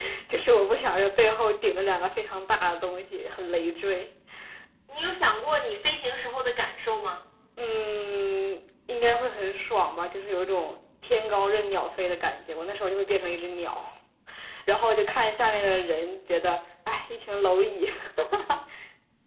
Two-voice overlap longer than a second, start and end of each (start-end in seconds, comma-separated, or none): none